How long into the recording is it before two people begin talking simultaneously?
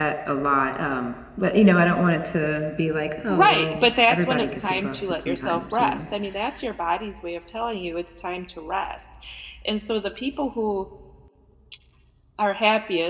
3.3 s

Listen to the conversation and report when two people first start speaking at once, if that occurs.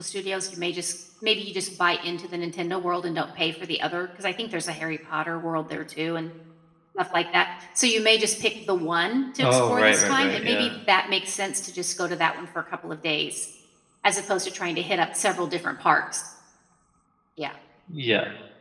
9.4 s

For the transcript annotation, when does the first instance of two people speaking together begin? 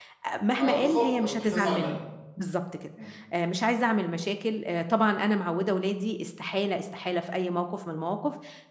0.6 s

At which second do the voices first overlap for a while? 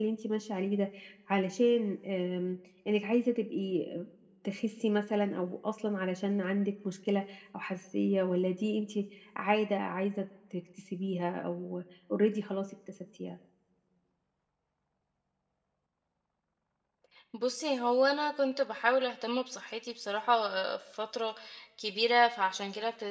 none

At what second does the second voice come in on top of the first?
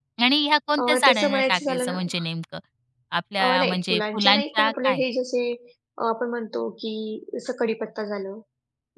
0.8 s

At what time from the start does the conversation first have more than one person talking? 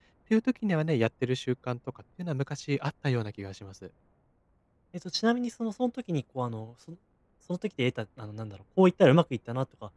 none

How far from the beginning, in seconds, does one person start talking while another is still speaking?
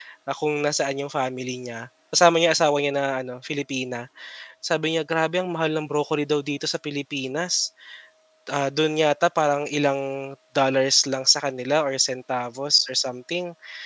none

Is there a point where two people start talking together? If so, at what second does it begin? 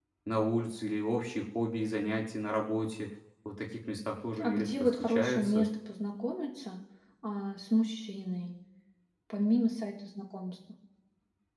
4.4 s

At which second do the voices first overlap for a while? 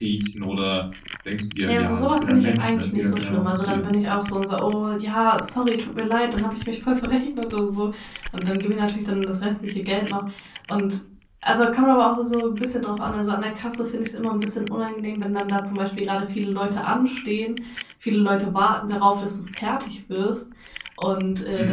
1.7 s

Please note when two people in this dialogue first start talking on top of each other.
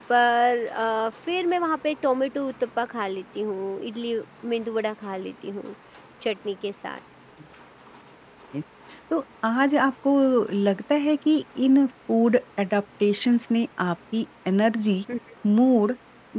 none

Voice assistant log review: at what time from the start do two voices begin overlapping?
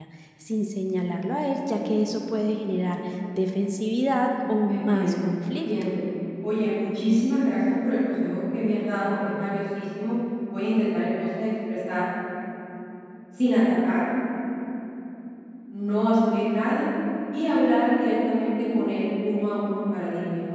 4.7 s

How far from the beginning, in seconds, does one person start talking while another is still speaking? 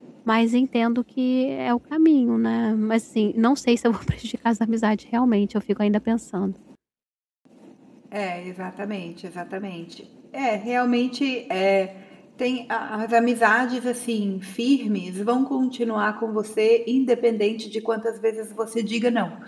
none

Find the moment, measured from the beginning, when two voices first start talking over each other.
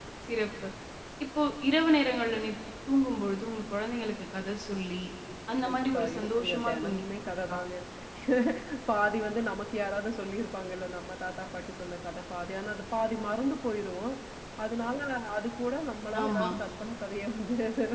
5.5 s

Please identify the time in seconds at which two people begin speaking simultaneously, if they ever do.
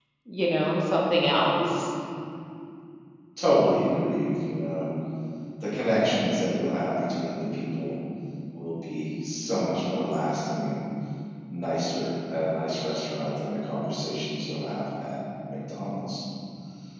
none

